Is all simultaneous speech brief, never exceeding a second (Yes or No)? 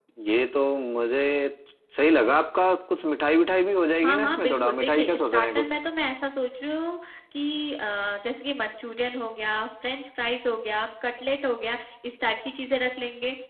No